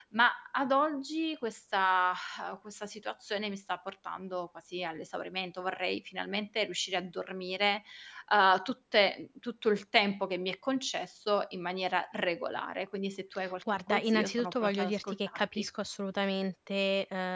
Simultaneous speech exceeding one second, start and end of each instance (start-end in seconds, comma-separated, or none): 13.9-15.6